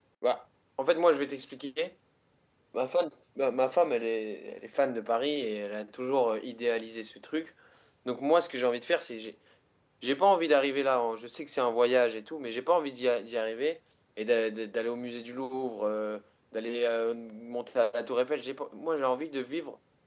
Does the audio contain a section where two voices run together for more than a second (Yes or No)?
No